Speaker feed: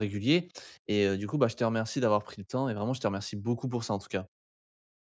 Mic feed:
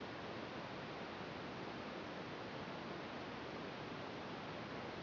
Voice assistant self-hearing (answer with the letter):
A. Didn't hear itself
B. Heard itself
A